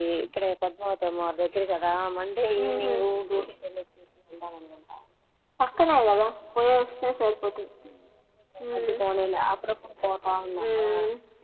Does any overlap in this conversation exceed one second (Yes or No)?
No